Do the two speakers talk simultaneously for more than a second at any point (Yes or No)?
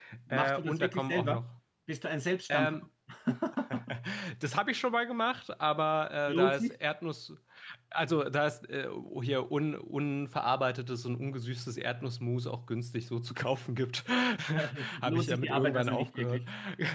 Yes